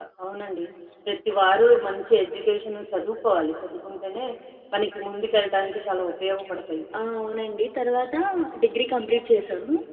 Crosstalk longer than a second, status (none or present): none